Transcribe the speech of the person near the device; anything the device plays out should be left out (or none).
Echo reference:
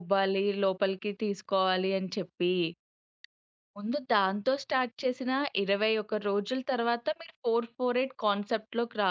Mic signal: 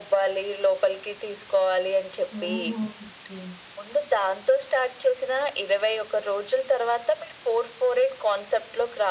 ఓహో! ఓకే.